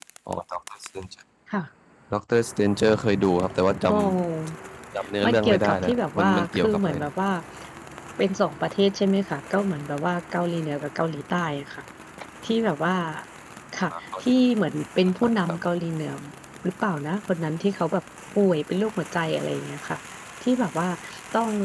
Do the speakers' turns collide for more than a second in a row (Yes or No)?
Yes